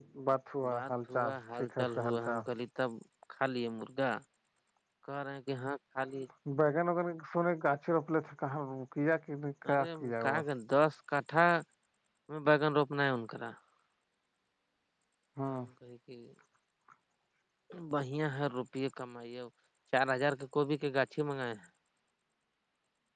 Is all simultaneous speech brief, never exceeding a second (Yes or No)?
No